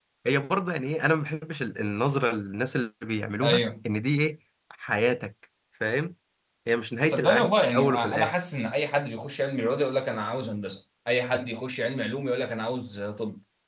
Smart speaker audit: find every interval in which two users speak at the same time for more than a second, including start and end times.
7.0-8.4

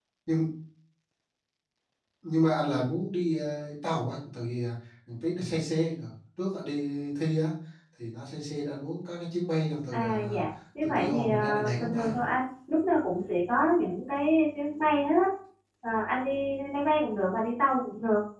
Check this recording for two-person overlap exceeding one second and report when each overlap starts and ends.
10.8-12.1

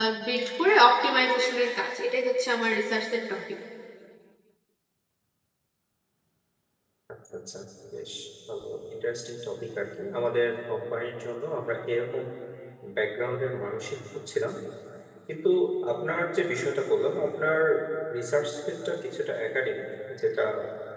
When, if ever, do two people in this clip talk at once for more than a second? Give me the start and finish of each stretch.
none

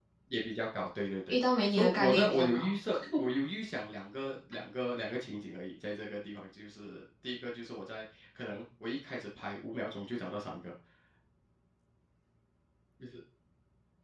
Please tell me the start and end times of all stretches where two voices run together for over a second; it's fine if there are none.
1.3-2.7

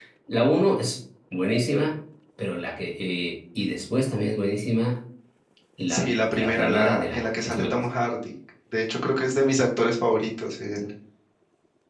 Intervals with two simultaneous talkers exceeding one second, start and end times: 5.9-7.8

